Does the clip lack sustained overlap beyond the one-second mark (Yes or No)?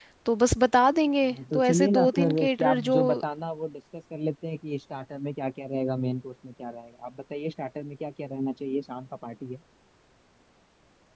No